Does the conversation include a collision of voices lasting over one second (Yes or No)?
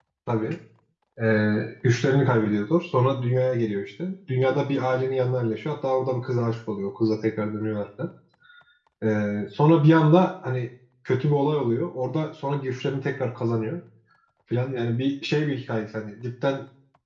No